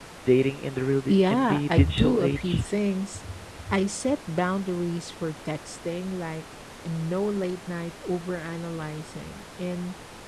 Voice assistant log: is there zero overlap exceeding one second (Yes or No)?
No